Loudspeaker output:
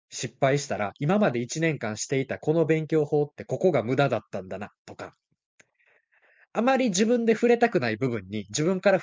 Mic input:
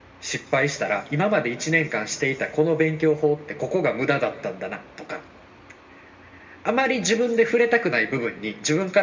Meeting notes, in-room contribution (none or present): none